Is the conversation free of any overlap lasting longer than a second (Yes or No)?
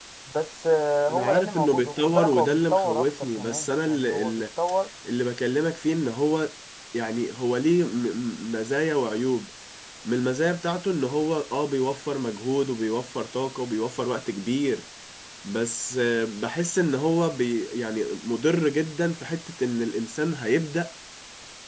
No